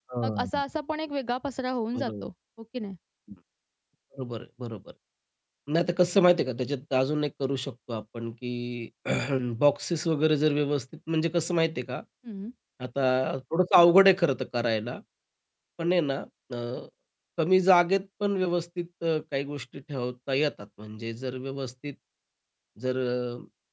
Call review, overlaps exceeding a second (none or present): none